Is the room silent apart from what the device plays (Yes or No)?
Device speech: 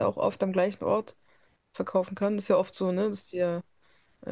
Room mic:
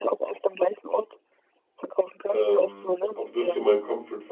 No